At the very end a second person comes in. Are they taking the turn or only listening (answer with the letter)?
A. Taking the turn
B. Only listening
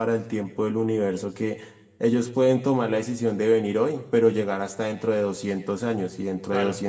B